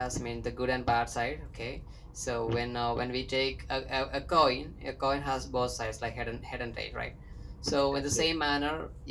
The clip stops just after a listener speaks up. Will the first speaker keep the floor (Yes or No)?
Yes